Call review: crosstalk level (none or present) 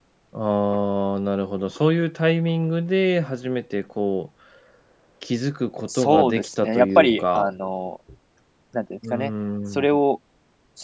present